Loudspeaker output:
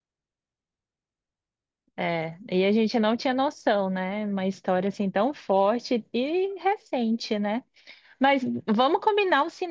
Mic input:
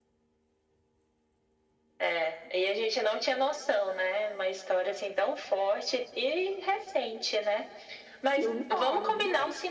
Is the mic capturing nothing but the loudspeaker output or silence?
No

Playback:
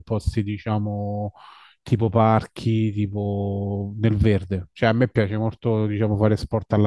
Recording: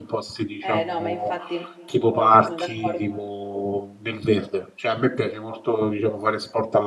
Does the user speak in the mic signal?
Yes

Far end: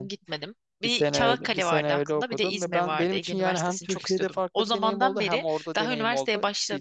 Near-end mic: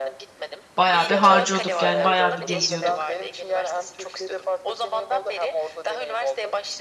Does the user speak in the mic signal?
Yes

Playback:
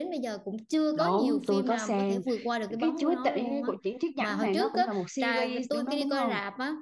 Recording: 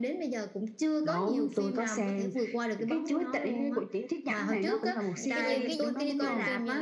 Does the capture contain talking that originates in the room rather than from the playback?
Yes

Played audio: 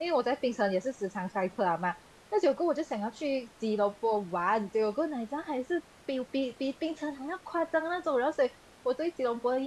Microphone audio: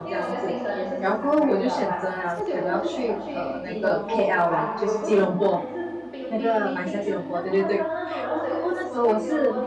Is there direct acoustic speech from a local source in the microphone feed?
Yes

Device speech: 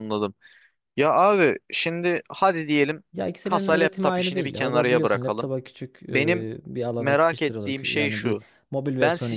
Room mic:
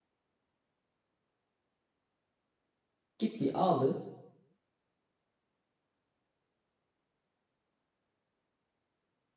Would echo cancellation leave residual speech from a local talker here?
Yes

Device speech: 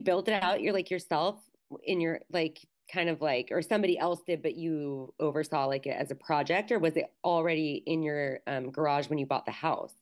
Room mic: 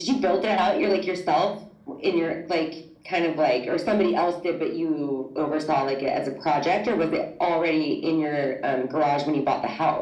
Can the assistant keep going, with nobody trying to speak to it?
Yes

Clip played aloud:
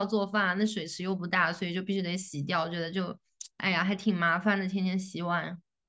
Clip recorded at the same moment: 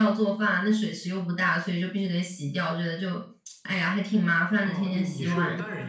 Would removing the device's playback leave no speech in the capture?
No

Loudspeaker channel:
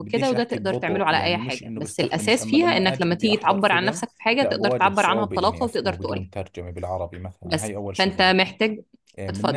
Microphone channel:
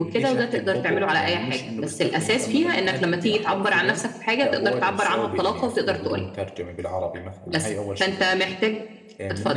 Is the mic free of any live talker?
Yes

